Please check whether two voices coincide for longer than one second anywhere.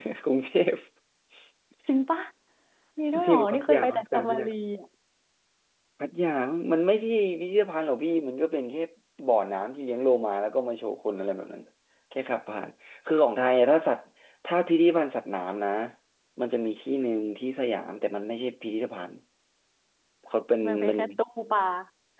Yes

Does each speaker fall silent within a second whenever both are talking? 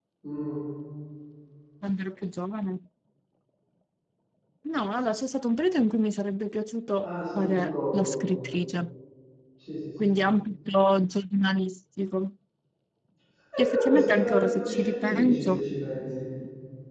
No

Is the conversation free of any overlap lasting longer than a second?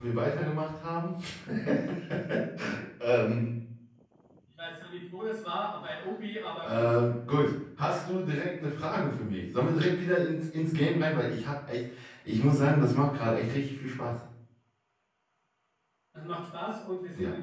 Yes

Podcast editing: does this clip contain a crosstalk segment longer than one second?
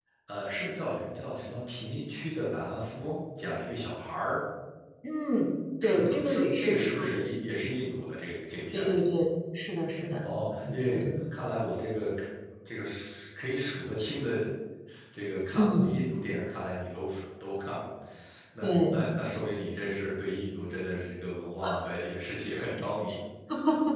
Yes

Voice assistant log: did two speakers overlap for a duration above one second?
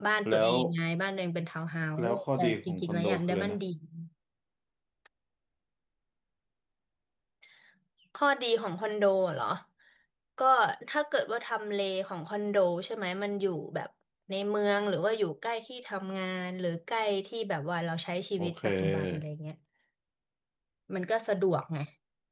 Yes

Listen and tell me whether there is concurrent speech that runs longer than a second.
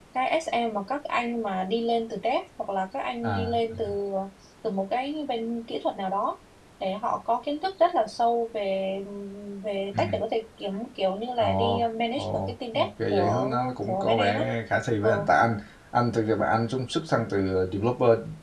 Yes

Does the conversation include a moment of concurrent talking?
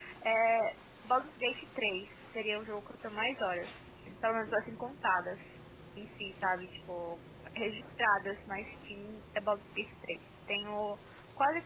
No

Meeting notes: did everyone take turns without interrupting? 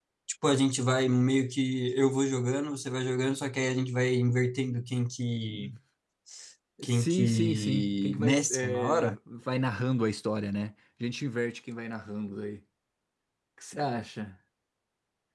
No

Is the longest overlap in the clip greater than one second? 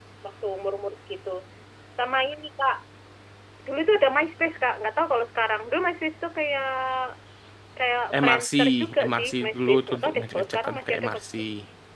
Yes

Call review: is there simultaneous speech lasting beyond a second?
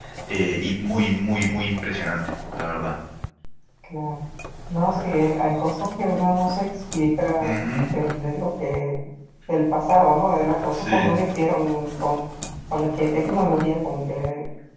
No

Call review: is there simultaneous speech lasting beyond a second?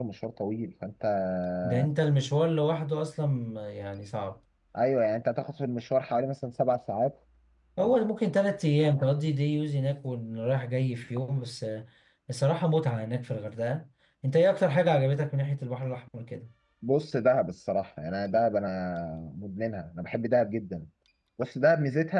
No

